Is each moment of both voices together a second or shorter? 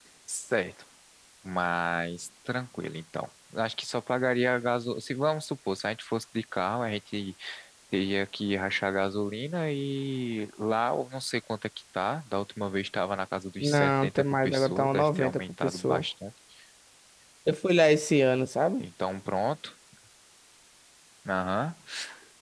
No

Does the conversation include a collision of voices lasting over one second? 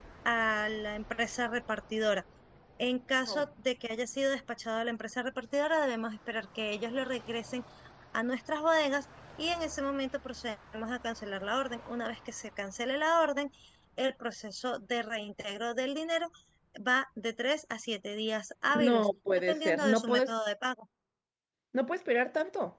Yes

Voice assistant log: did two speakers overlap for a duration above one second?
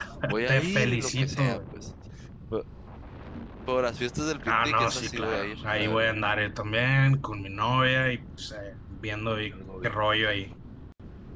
Yes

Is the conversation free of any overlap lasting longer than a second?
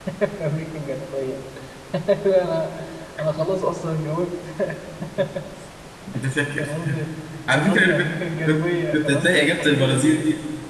No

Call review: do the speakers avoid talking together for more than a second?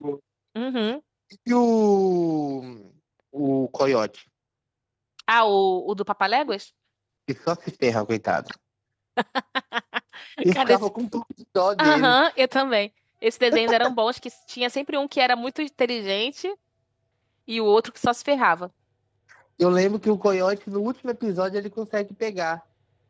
Yes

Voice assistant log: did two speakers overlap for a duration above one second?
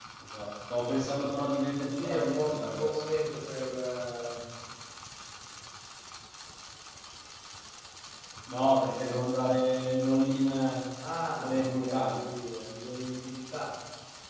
Yes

